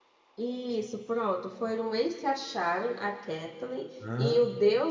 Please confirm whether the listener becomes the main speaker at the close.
No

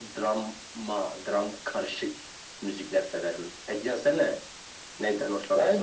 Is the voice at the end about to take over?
Yes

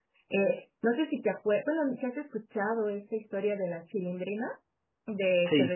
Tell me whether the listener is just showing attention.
Yes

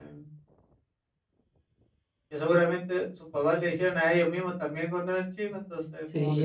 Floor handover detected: Yes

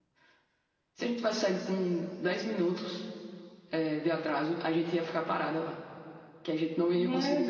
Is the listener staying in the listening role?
No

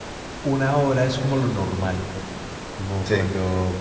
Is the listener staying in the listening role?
Yes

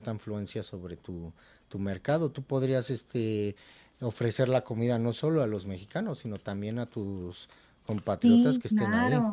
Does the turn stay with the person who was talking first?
No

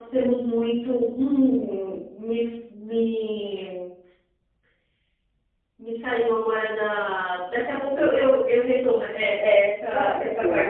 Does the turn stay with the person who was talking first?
Yes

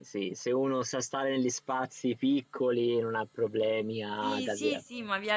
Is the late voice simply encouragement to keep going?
No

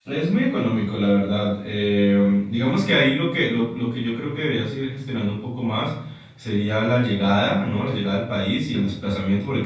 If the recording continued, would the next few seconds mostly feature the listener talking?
No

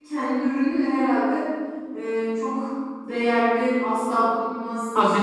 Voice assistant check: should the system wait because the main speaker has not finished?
Yes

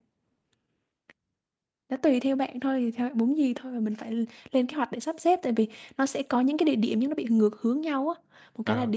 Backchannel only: Yes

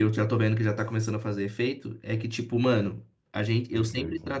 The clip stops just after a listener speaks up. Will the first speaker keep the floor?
Yes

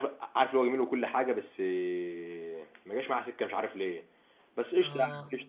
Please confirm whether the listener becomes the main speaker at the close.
No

